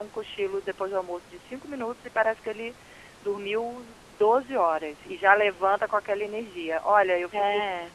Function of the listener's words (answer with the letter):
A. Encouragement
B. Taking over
A